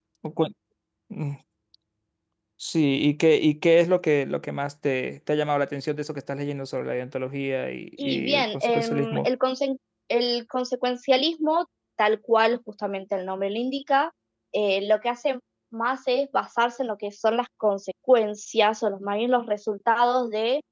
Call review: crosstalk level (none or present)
present